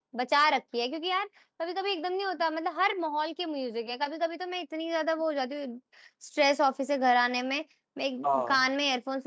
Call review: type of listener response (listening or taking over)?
listening